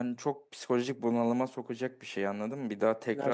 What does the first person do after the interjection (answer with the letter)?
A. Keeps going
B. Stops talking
A